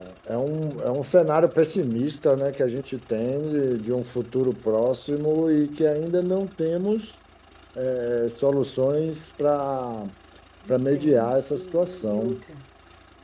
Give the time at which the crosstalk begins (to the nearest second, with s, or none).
11 s